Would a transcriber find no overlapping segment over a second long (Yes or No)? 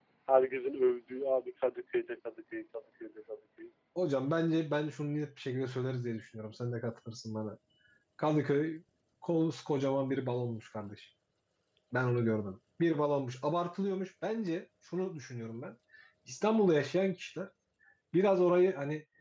Yes